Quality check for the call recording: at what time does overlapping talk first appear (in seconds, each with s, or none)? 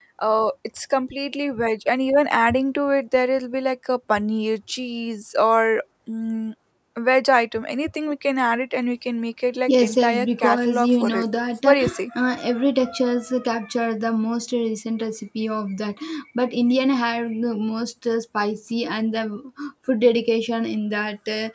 9.7 s